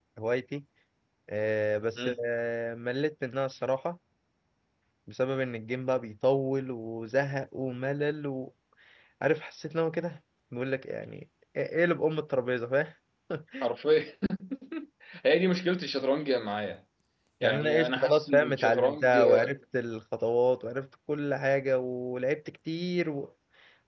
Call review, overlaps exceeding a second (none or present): present